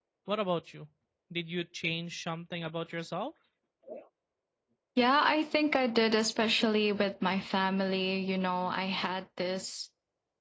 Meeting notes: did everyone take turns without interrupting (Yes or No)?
Yes